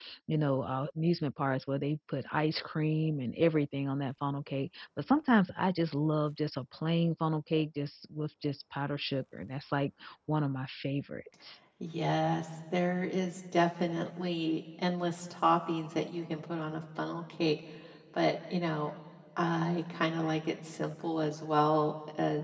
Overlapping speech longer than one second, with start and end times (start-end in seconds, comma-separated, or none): none